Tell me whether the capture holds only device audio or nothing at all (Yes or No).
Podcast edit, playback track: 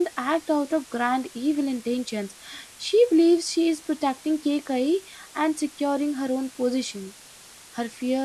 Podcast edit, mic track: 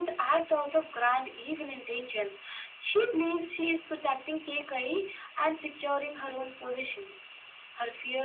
Yes